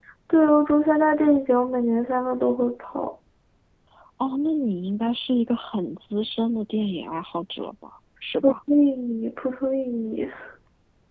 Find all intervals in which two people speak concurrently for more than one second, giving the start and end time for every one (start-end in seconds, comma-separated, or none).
none